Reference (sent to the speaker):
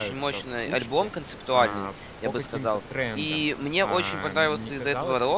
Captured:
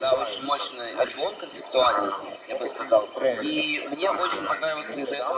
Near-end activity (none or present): none